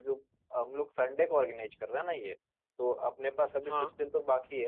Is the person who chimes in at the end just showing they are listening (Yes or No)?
Yes